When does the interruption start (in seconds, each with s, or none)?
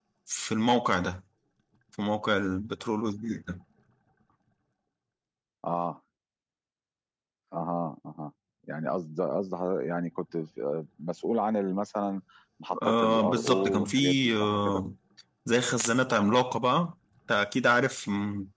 12.8 s